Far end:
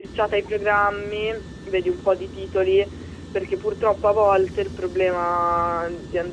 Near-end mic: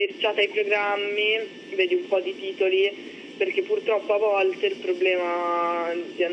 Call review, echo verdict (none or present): present